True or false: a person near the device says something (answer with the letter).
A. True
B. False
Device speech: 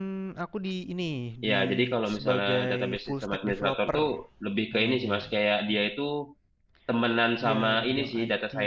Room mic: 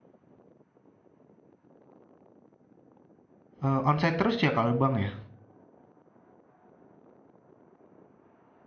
A